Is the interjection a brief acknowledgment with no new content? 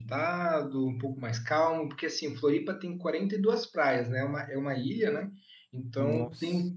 Yes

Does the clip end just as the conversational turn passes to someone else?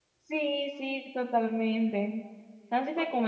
No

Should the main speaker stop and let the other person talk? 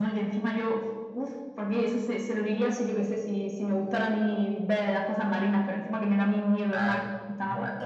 Yes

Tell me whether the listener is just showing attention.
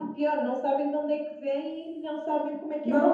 No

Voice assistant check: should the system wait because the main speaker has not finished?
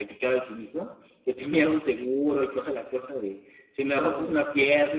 Yes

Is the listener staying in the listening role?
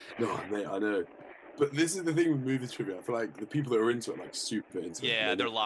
No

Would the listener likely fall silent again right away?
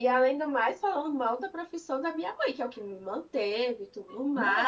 Yes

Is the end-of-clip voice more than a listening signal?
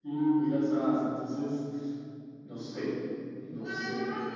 Yes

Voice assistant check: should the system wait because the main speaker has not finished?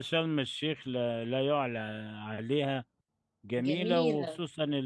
Yes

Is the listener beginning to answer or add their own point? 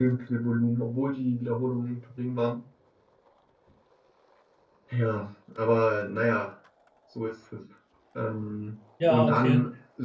No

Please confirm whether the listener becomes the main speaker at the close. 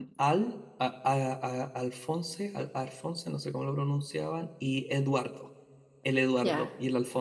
Yes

